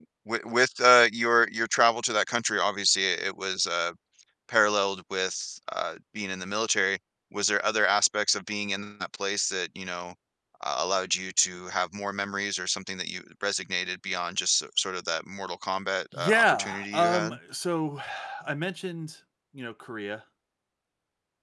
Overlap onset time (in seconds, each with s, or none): 16.1 s